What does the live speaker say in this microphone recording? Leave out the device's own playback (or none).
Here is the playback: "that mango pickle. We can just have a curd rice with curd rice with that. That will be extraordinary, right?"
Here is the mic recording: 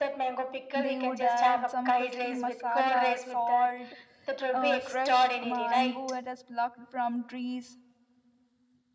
they would add some crispy masala, salt, uh, fresh mango that is plucked from trees